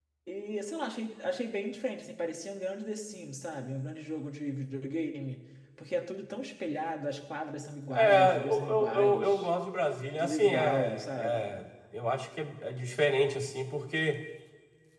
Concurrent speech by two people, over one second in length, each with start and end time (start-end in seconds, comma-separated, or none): 8.0-9.5, 10.2-11.6